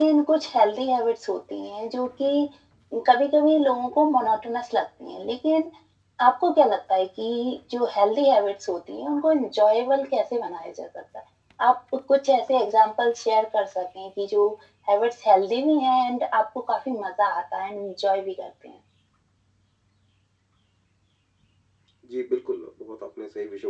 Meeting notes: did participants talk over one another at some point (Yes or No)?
No